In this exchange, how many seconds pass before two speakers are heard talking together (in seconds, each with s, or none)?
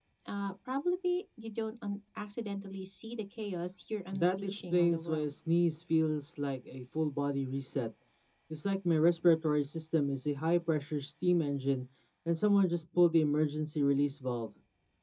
4.1 s